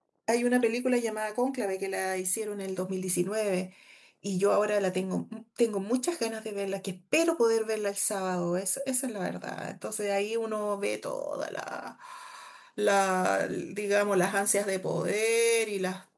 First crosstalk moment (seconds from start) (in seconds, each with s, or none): none